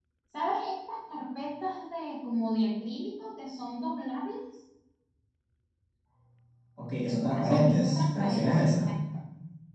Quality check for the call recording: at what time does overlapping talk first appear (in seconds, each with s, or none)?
7.5 s